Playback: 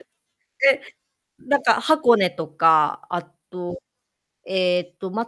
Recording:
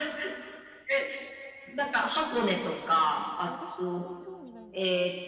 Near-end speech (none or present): present